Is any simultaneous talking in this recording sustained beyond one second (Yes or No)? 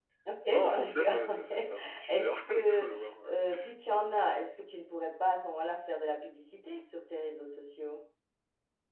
Yes